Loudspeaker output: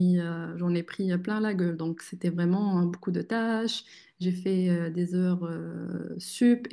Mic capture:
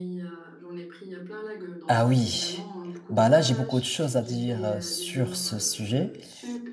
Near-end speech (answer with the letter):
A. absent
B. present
B